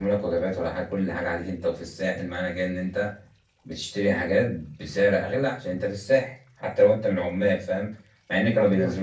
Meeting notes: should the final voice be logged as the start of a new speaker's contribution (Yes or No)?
No